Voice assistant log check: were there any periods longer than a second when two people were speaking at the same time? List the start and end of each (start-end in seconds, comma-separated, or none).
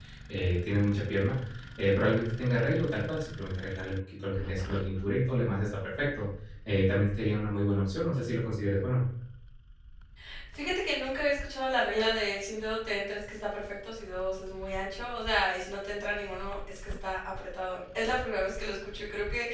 none